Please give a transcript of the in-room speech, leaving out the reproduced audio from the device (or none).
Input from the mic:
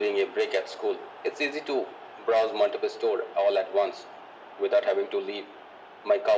none